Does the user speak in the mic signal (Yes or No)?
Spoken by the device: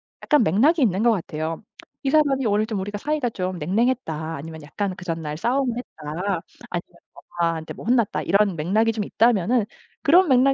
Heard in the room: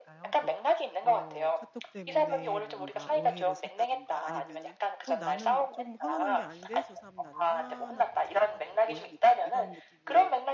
Yes